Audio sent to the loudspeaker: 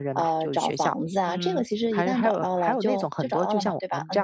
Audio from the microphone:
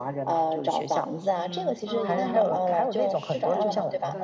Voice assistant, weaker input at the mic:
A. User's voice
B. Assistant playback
A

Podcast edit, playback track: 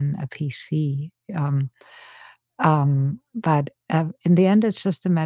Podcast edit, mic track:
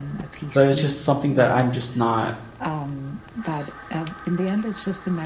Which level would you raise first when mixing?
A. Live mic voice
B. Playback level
B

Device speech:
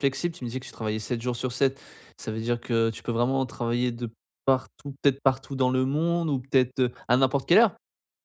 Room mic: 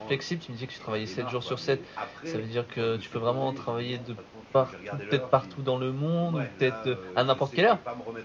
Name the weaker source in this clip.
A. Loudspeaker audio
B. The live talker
B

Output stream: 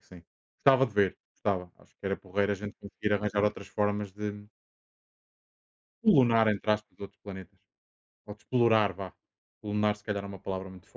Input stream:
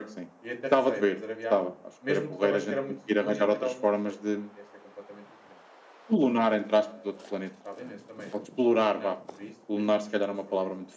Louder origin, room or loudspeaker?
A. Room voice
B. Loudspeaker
B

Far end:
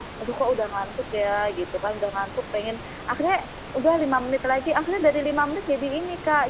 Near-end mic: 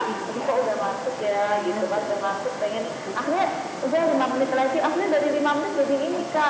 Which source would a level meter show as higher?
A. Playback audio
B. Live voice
A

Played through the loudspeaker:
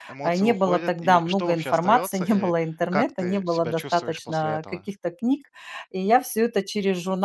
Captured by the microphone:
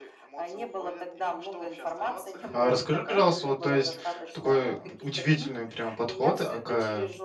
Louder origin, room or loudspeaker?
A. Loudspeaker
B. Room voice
B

